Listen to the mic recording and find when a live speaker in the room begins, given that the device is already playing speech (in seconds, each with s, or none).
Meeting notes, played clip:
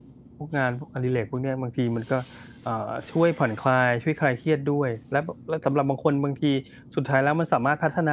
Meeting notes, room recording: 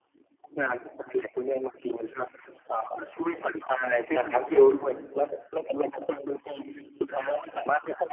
4.2 s